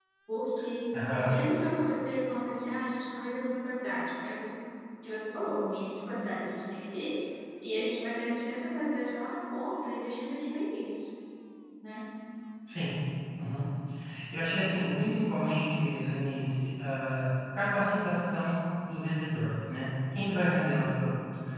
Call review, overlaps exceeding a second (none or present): none